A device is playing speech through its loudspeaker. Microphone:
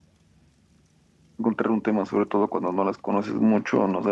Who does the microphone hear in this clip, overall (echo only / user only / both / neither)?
user only